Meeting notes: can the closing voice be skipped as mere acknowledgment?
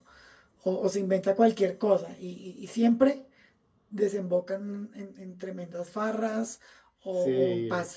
Yes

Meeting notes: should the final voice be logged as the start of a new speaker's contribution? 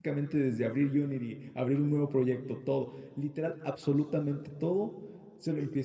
No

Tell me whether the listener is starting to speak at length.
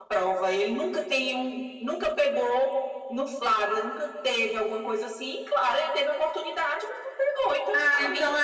Yes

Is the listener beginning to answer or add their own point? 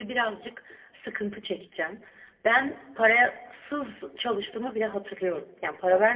No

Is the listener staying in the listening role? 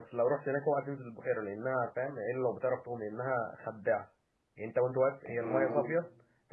Yes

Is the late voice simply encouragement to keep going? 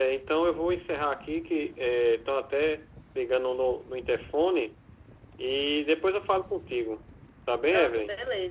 No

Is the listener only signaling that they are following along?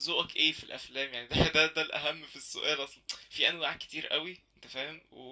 Yes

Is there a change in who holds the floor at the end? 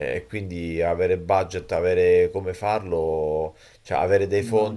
No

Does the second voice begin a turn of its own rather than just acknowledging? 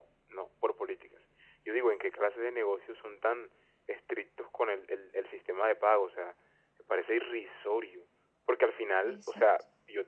No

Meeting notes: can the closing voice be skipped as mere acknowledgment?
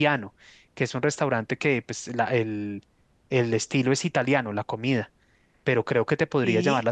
Yes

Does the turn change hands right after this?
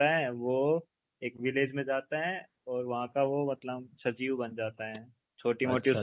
No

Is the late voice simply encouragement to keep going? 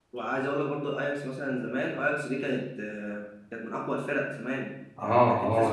No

